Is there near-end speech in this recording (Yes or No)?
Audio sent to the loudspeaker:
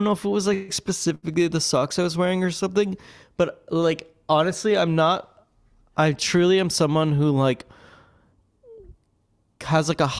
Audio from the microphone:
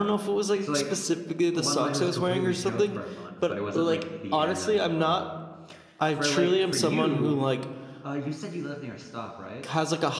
Yes